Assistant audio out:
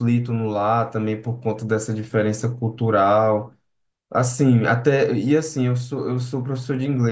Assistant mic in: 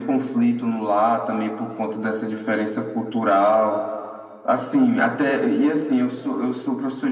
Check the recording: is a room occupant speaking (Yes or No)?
No